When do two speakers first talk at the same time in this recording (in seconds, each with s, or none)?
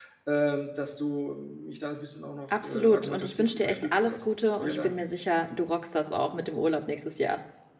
2.5 s